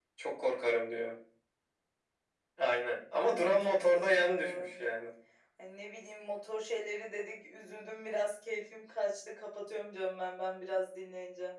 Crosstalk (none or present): present